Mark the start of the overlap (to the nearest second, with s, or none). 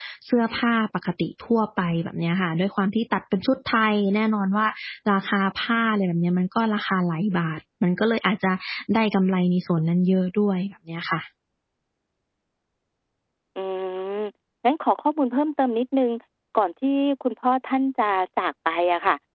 none